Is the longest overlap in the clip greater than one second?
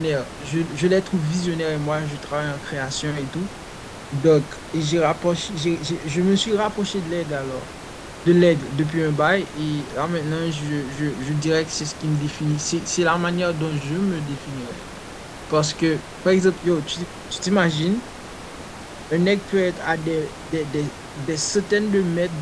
No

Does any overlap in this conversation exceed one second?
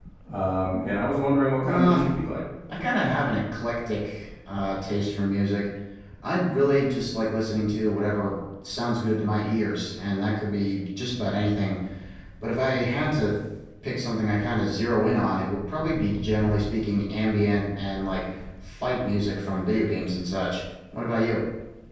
No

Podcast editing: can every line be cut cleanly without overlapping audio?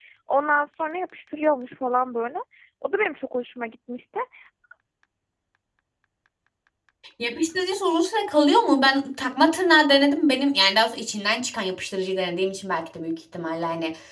Yes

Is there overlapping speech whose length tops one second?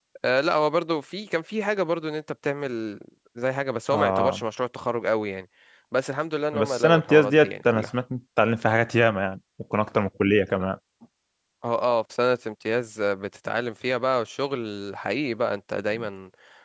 Yes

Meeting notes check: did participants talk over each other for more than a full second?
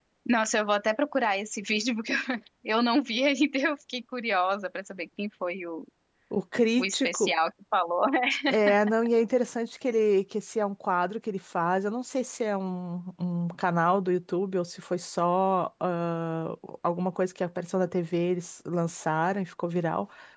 No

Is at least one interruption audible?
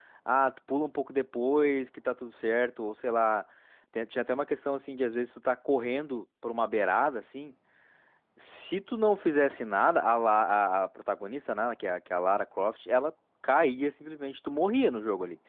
No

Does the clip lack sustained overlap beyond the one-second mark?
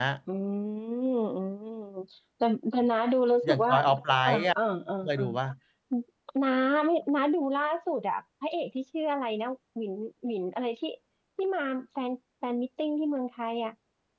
Yes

